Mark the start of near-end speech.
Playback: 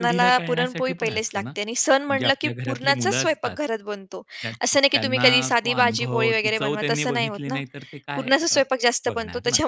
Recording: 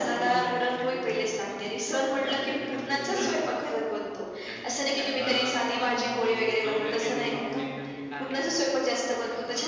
none

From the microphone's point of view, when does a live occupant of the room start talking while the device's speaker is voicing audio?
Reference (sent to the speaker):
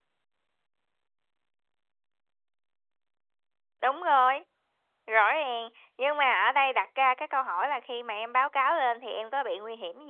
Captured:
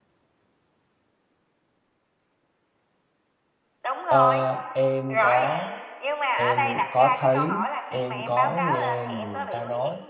4.1 s

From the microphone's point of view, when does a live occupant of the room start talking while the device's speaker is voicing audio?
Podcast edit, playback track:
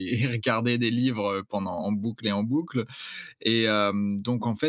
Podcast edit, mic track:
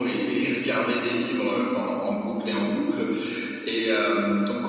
none

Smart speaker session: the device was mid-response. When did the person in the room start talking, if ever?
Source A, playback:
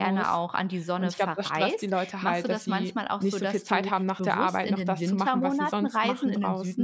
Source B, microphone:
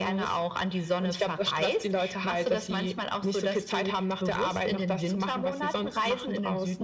none

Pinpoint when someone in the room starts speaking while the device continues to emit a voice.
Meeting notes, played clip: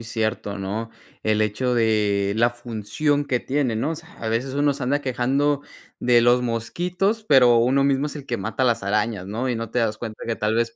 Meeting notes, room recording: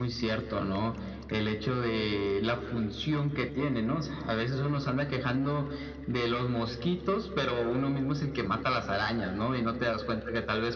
none

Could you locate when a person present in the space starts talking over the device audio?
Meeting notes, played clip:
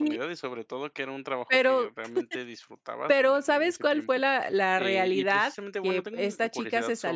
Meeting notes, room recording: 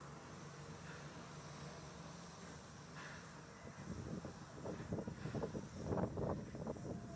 none

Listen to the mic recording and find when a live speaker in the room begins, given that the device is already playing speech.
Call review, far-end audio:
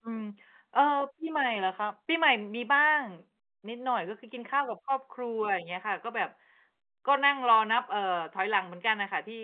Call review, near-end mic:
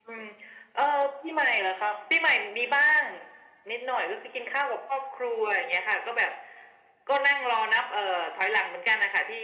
none

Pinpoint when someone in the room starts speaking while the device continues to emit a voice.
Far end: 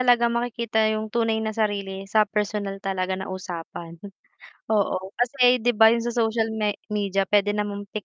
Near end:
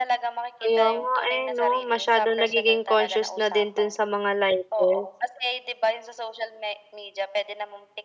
0.6 s

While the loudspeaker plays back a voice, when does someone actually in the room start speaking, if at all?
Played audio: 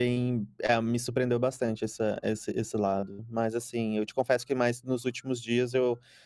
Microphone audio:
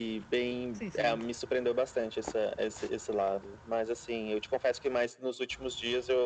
0.7 s

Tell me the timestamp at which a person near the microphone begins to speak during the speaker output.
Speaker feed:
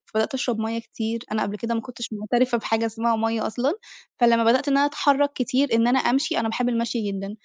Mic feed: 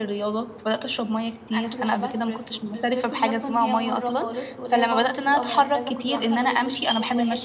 1.6 s

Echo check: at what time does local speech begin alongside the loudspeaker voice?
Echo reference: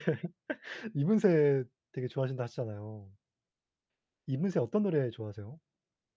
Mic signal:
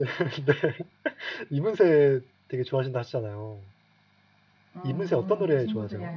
4.8 s

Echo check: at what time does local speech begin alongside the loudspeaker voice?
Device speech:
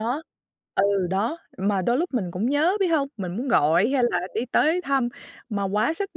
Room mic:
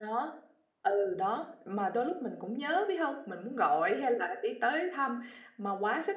none

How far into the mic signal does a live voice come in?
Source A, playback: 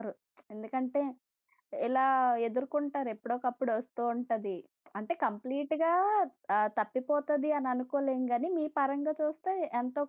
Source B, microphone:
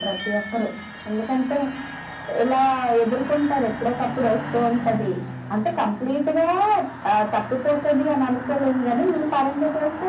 none

